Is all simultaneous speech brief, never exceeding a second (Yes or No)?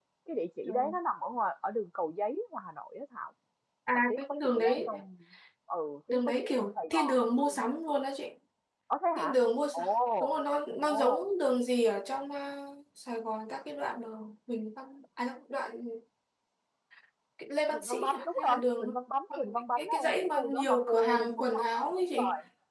No